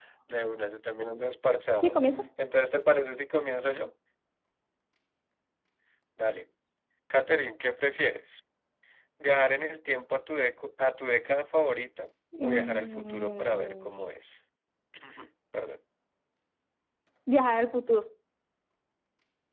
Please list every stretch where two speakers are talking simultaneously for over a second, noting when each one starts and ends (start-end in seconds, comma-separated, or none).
12.4-14.1